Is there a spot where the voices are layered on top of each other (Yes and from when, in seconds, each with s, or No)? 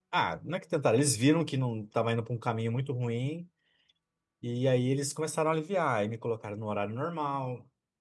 No